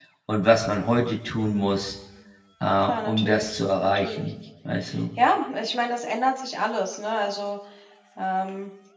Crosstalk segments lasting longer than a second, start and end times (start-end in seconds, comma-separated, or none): 2.8-4.2